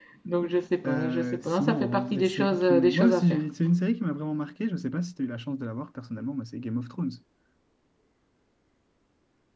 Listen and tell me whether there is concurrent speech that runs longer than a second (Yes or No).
Yes